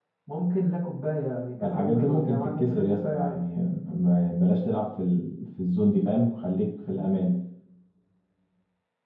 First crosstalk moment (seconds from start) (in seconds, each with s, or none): 1.6 s